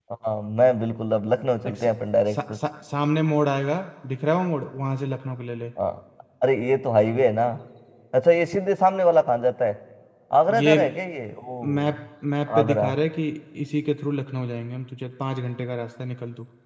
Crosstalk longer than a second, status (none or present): none